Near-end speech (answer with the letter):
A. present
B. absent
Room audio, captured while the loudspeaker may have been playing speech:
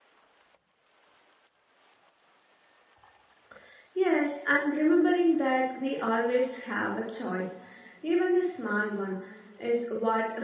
A